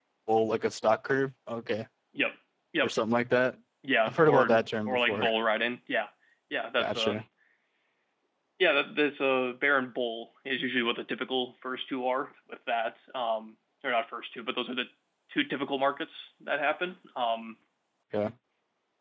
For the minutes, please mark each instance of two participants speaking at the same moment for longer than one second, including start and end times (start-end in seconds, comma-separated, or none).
4.0-5.3